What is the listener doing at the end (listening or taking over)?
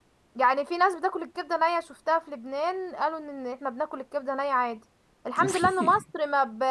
listening